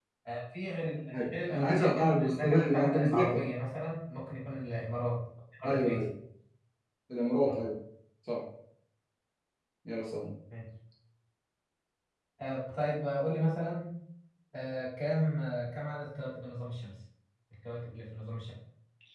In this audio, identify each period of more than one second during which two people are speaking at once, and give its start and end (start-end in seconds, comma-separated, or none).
1.1-3.4